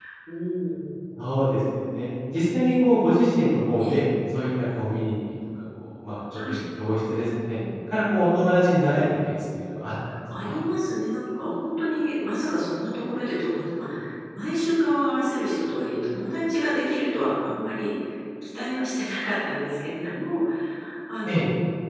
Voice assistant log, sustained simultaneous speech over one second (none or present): none